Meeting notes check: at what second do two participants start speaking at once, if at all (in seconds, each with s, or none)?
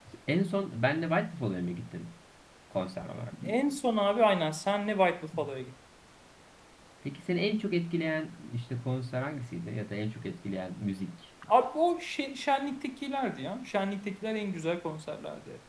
none